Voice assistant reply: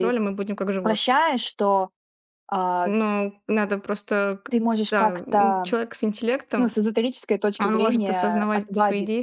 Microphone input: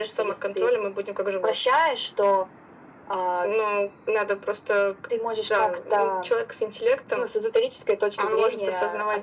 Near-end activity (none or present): none